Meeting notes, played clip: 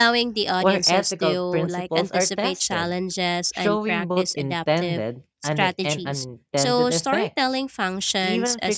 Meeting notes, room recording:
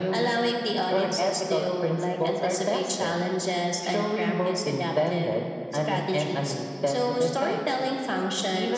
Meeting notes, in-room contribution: none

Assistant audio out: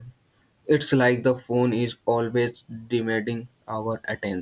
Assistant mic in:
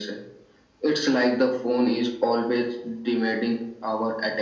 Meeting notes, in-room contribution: none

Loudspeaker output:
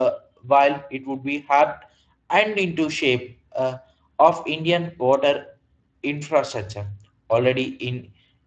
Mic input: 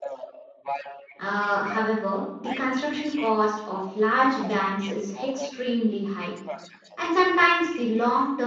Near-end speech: present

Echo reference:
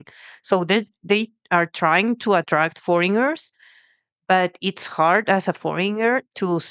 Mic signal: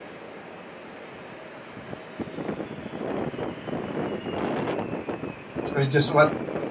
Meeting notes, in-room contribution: present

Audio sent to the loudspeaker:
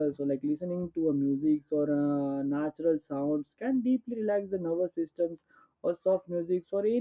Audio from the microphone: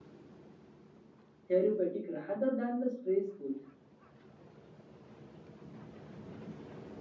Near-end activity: present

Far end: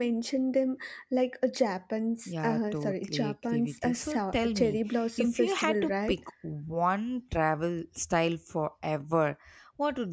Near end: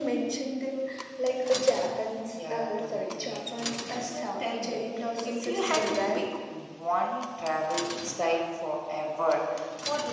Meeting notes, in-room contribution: none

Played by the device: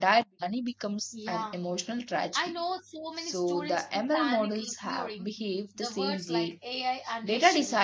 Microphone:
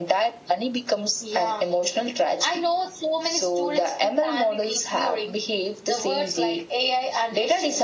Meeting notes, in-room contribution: none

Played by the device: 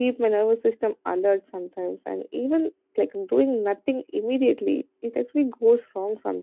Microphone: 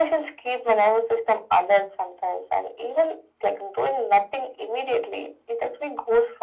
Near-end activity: none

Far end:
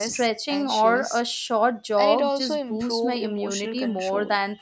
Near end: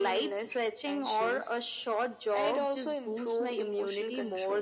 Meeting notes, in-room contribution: none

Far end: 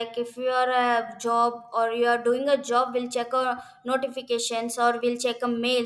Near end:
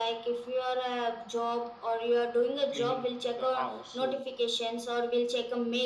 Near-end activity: present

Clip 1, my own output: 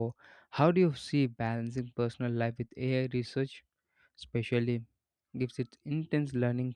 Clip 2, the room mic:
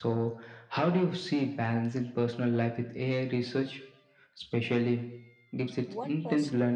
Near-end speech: present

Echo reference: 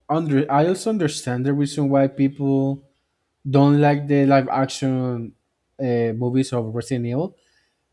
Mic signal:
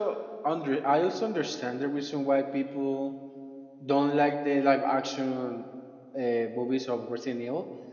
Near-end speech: none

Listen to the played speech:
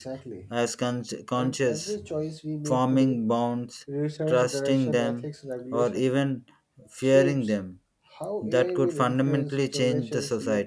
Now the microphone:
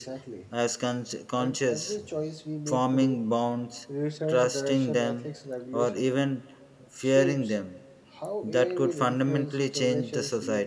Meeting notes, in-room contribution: none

